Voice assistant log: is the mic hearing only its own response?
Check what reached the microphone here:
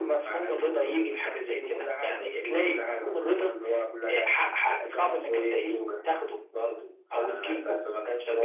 Yes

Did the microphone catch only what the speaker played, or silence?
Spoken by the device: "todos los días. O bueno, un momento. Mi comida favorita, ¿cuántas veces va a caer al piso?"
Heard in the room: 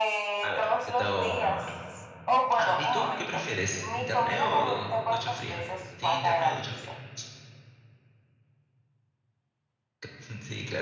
No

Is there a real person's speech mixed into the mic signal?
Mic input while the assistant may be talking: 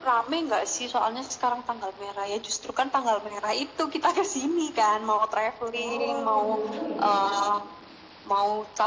Yes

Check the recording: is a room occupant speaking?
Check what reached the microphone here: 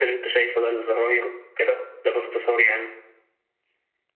No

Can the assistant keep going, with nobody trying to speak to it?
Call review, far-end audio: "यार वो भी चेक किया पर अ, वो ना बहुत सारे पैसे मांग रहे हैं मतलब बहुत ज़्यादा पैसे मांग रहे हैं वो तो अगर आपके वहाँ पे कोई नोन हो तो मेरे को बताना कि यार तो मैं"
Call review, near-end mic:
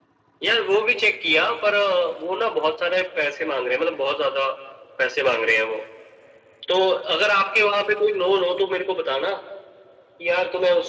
Yes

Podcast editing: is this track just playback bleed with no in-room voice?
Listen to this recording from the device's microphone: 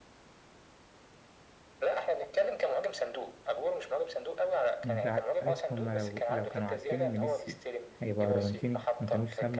No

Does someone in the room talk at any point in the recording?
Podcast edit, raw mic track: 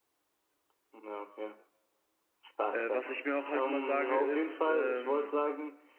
Yes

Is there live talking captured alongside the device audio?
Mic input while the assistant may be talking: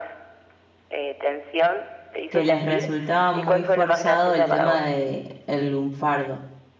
Yes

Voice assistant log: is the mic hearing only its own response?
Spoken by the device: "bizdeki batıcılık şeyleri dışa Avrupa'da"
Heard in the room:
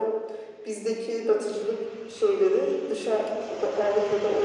Yes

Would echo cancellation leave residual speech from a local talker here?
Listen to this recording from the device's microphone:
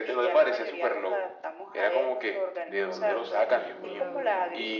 Yes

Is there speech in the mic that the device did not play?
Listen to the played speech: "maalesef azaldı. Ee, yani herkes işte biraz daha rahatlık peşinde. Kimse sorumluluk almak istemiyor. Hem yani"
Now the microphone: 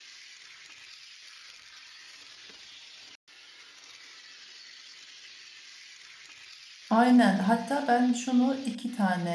Yes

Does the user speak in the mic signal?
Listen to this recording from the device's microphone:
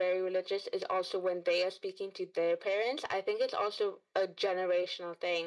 No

